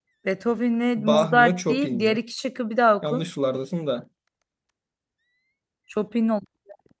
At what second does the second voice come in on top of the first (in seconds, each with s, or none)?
1.0 s